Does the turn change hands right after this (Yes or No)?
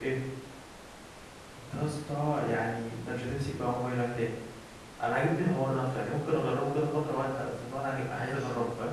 Yes